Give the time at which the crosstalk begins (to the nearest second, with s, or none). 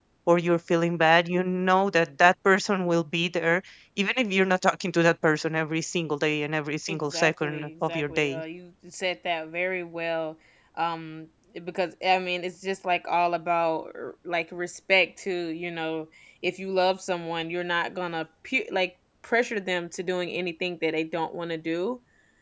7 s